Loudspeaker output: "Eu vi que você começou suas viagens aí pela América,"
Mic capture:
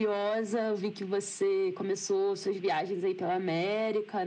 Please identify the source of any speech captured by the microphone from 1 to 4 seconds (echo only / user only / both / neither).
echo only